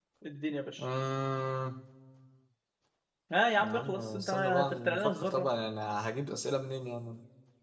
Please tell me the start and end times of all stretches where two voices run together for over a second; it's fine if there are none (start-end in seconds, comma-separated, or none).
3.6-5.5